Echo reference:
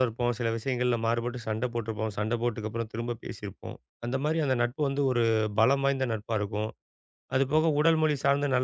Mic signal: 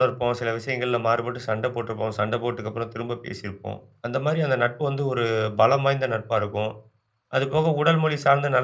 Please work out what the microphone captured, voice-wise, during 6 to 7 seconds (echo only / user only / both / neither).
echo only